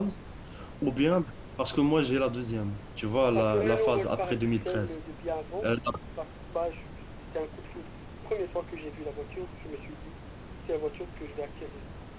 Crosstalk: present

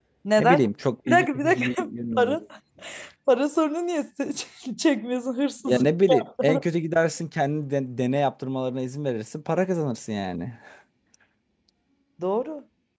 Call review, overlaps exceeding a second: present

